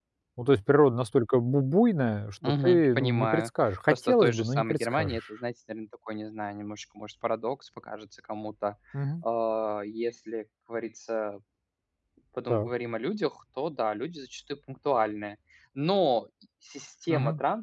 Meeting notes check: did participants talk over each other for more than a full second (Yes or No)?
Yes